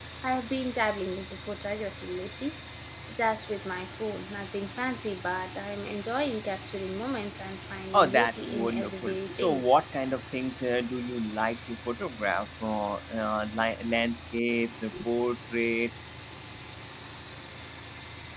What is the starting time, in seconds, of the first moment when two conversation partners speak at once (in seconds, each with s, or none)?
7.9 s